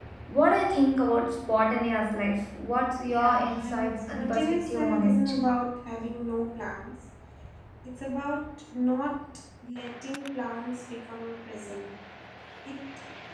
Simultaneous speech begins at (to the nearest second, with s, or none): 3 s